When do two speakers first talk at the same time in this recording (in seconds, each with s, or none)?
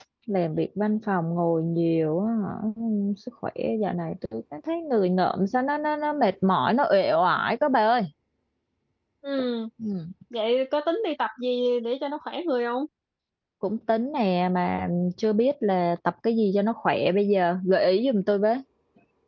none